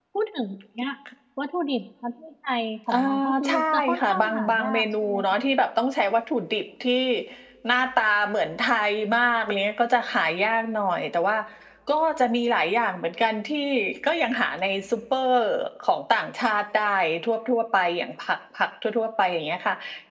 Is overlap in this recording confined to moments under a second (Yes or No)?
No